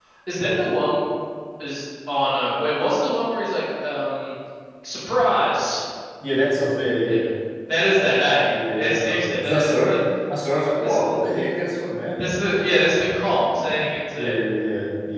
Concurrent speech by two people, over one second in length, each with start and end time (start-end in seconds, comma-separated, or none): 8.5-10.0